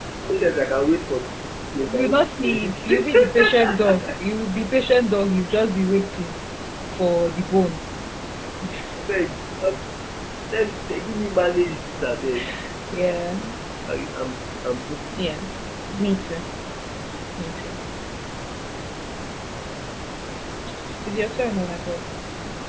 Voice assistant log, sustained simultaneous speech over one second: present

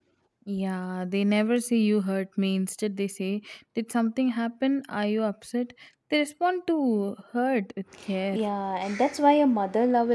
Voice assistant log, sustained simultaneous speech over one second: none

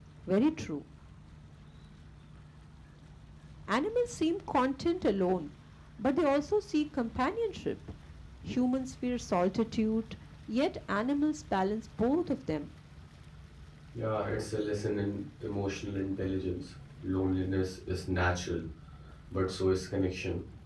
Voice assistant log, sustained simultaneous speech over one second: none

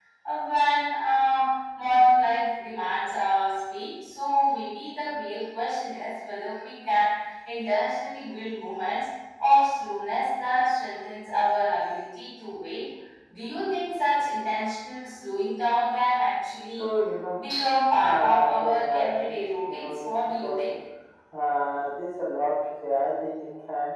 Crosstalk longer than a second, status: present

